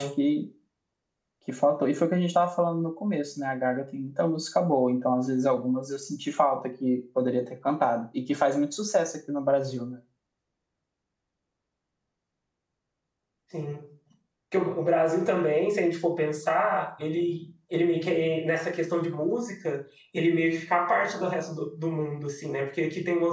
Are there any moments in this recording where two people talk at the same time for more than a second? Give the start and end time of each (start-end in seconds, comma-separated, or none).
none